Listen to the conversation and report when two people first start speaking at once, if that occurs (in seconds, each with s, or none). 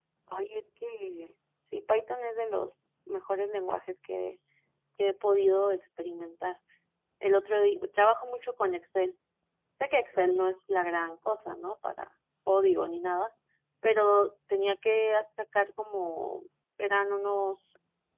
none